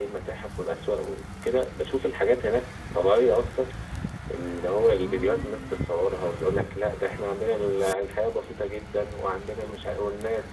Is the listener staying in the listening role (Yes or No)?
Yes